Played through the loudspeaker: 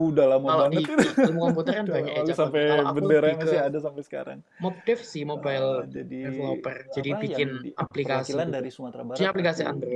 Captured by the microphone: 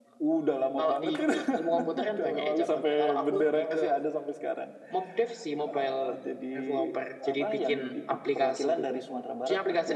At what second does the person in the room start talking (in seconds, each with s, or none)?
none